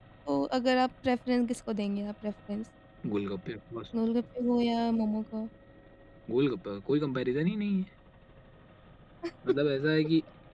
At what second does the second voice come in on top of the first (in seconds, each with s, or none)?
none